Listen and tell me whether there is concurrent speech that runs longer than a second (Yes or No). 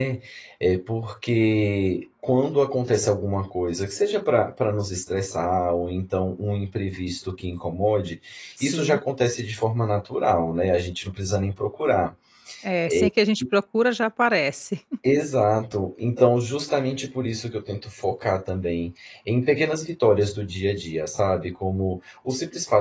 No